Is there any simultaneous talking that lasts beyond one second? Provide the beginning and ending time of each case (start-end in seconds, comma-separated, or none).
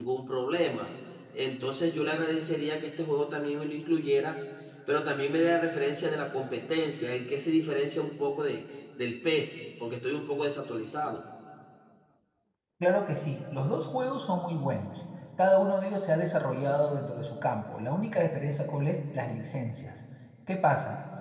none